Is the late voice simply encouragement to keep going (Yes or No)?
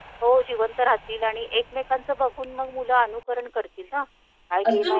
No